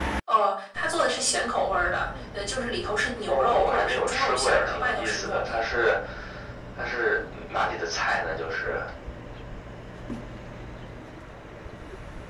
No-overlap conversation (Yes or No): No